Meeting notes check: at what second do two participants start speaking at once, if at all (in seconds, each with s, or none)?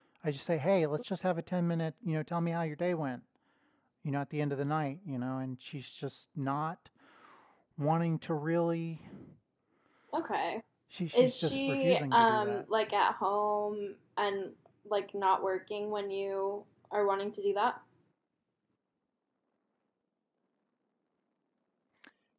11.2 s